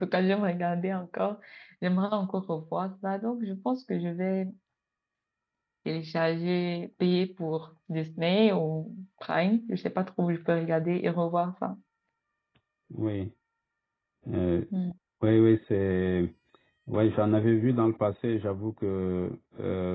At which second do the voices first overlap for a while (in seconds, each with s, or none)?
none